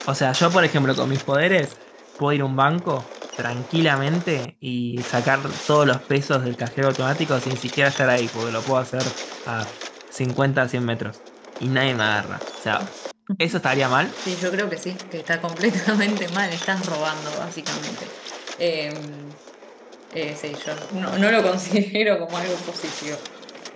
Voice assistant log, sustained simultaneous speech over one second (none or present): none